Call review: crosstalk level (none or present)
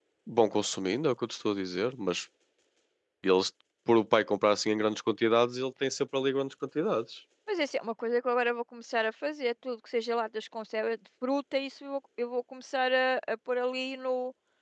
none